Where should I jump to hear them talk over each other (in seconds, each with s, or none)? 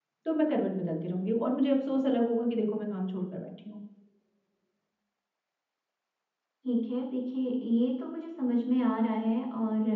none